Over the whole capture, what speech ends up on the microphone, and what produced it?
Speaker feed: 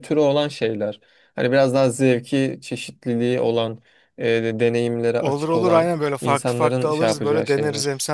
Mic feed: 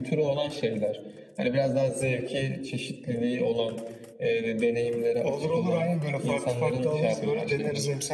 echo only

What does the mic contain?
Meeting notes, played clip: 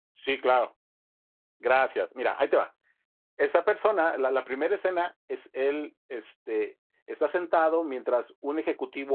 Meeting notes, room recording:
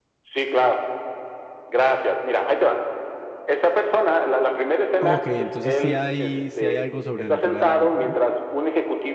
both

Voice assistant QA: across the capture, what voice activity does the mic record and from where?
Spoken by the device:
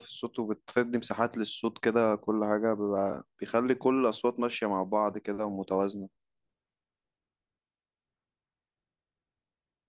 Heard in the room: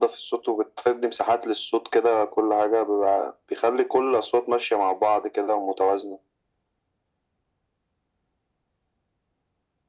echo only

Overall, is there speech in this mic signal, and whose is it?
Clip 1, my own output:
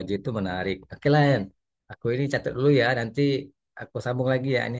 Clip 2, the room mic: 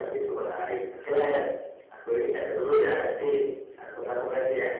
echo only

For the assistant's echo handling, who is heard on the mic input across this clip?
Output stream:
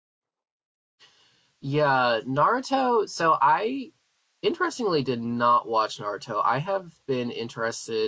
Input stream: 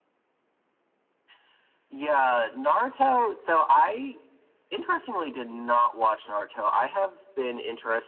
echo only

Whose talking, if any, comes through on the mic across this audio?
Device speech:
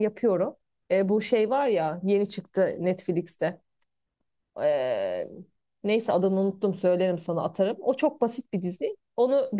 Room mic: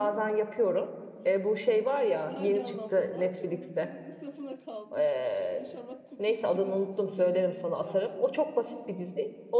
both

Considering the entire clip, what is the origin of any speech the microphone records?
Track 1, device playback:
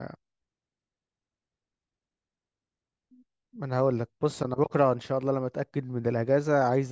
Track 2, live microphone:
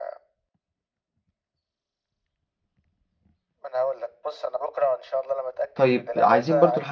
both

